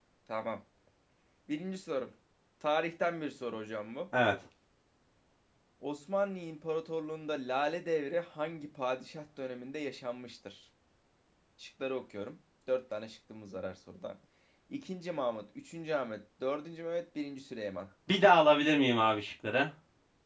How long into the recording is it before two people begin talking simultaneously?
none

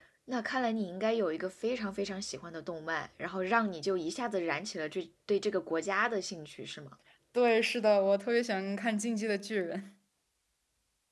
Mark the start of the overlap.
none

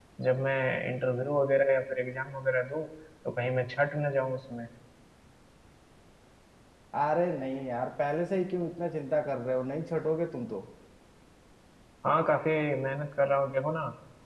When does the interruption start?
none

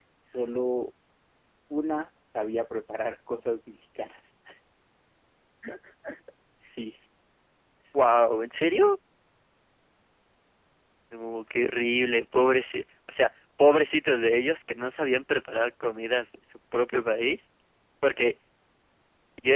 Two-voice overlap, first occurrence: none

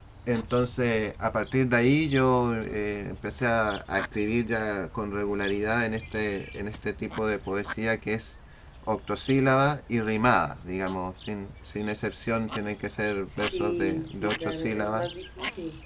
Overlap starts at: 13.4 s

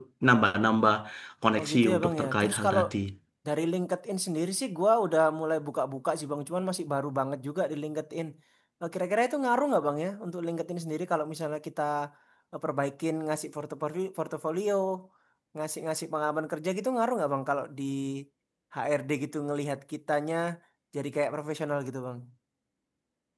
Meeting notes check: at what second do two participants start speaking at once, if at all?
1.6 s

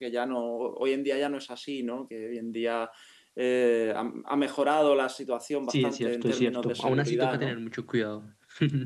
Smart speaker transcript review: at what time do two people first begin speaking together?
5.7 s

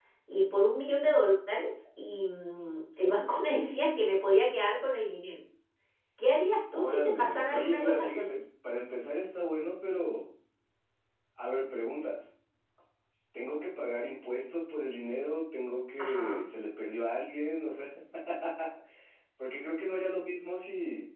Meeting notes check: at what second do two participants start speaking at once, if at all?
6.7 s

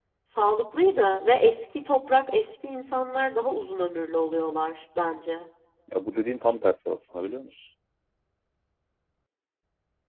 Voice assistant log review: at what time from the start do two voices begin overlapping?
none

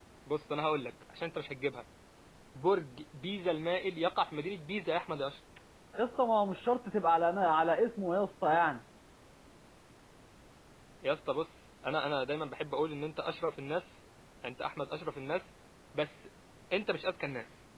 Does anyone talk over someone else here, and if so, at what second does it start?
none

